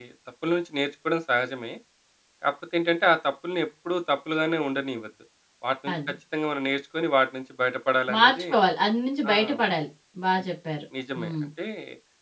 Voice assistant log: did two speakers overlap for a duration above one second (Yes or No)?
No